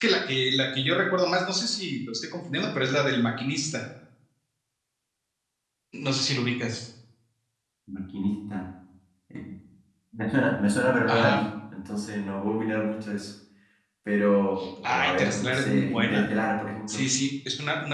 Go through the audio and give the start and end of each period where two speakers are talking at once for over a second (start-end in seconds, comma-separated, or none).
15.0-16.2